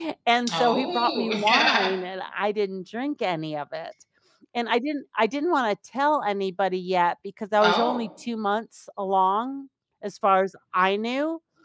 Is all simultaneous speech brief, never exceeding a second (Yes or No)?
No